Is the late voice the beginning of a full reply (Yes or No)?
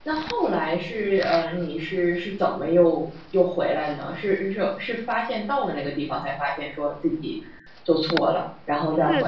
Yes